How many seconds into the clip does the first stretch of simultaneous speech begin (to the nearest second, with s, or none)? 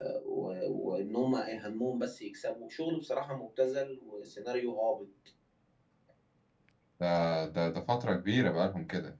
none